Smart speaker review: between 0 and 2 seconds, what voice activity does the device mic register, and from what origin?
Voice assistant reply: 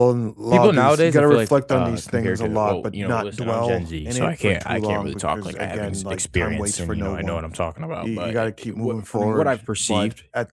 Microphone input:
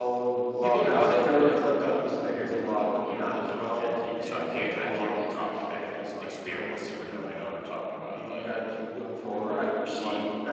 echo only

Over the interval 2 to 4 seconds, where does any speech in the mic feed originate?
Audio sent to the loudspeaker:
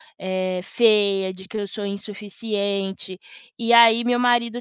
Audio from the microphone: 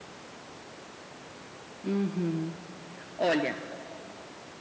user only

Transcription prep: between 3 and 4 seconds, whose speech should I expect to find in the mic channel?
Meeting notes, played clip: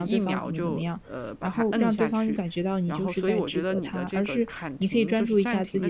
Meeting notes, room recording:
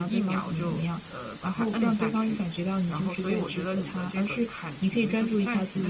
echo only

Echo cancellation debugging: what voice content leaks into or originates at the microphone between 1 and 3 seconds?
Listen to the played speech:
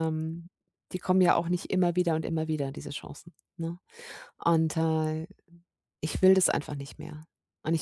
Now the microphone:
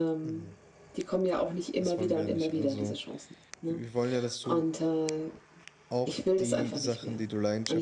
both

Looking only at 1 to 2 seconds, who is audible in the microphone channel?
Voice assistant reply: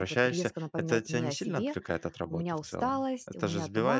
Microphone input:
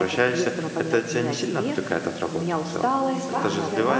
echo only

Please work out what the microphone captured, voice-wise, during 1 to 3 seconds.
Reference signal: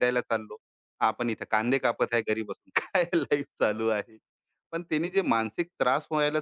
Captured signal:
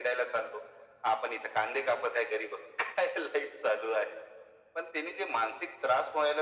echo only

